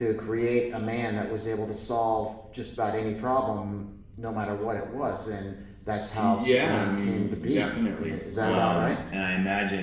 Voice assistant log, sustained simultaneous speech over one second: present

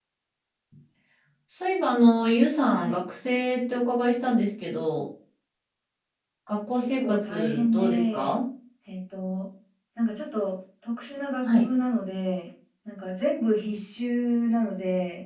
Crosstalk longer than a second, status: present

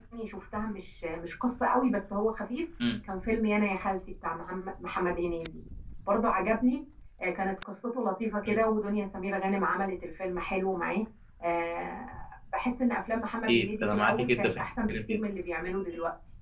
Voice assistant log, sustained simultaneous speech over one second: present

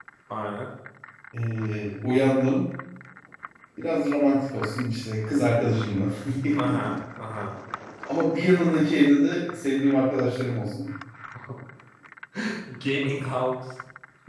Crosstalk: none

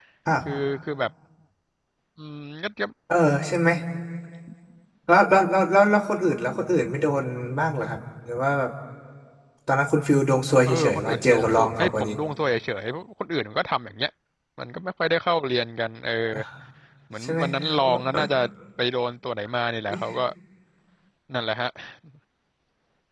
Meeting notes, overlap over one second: present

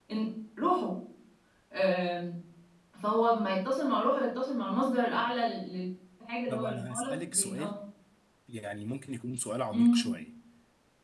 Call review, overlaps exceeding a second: present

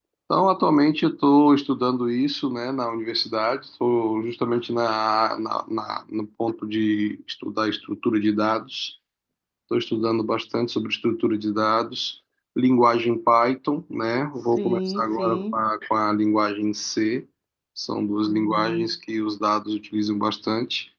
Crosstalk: present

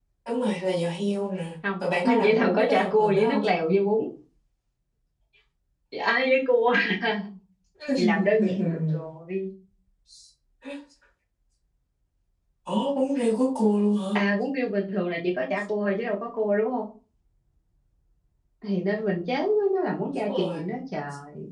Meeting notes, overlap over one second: present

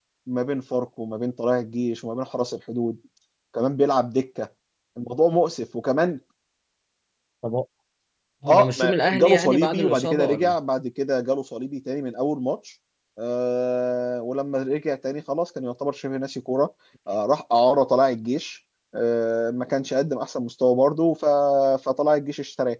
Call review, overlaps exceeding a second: present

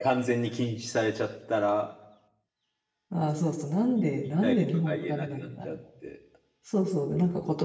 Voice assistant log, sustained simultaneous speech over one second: present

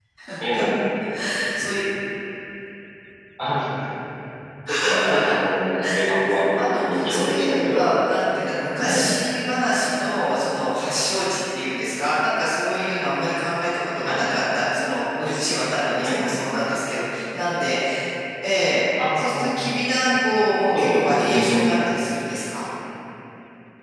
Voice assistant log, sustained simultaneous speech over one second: present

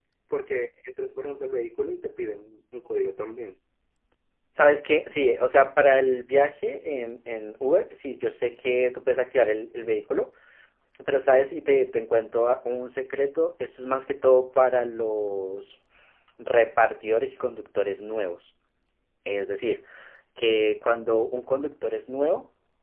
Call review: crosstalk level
none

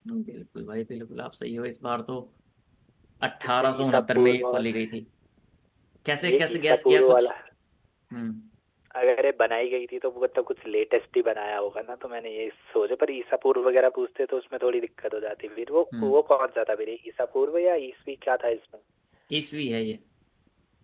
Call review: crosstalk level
present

